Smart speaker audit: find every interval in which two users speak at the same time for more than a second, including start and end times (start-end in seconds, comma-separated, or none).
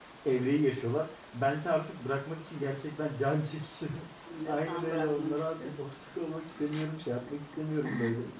4.4-5.9